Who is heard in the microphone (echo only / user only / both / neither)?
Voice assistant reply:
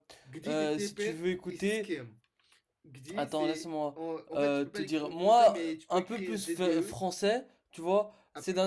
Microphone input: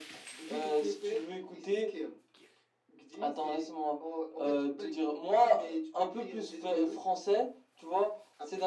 echo only